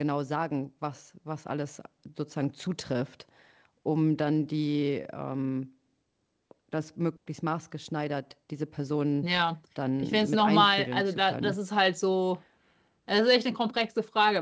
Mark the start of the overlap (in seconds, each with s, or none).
10.0 s